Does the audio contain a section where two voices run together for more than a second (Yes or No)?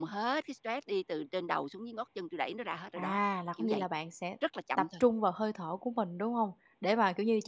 No